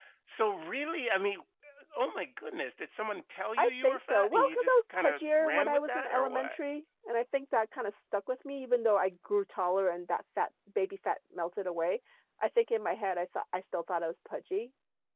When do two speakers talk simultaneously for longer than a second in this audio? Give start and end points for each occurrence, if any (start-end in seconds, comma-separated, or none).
3.6-6.6